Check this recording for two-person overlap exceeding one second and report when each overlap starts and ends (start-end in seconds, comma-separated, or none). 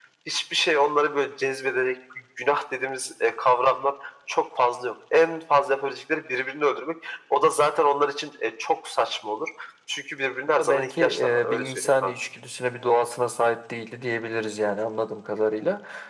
10.6-12.1